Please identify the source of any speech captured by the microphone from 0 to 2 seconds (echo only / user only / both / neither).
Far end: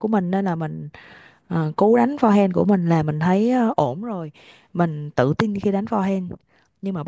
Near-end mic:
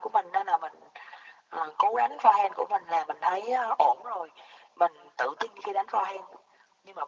echo only